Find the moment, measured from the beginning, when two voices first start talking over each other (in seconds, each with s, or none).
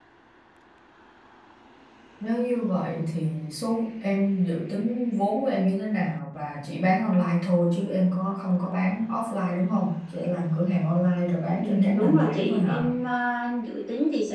11.6 s